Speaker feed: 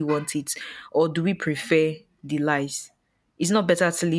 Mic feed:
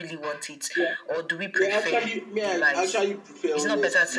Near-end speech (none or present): present